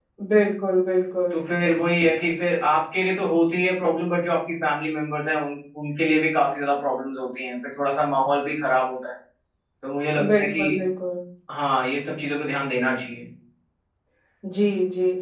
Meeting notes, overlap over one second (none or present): none